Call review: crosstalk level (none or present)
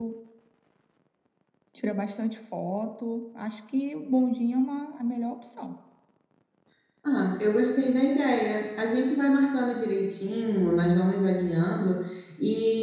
none